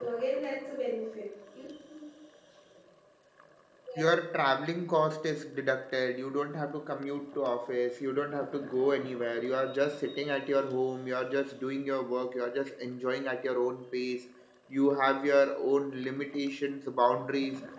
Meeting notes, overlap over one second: none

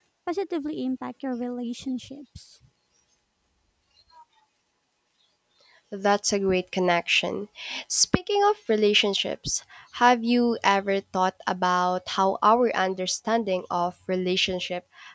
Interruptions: none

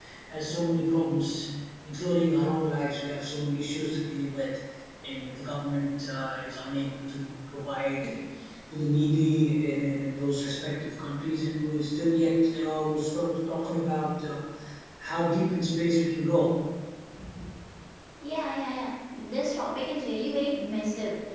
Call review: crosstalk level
none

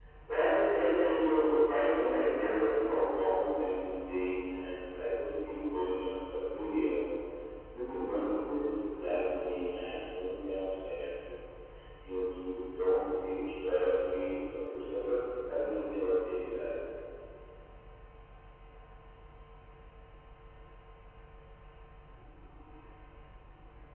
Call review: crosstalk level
present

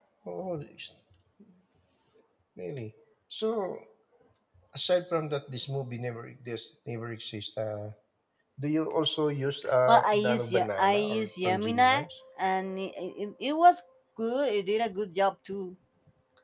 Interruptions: present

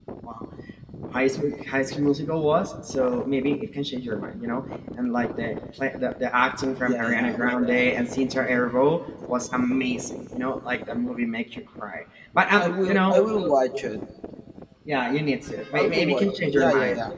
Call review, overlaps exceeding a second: present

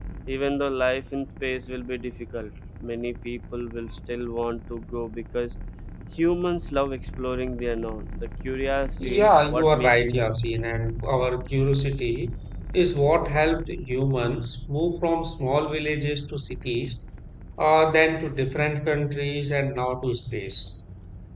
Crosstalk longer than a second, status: present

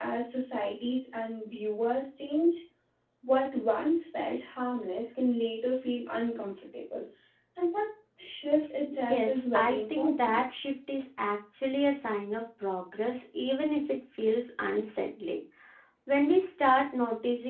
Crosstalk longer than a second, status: present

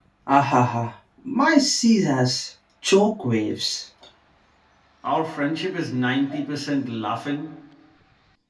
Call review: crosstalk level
none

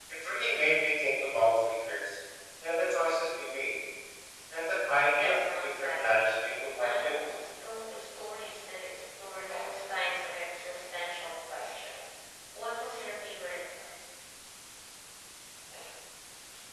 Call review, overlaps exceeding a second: present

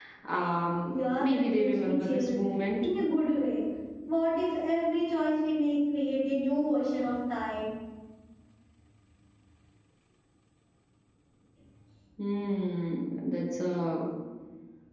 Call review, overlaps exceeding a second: present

